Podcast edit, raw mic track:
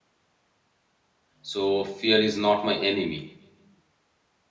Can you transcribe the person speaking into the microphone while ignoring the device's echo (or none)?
So, fear is not my enemy.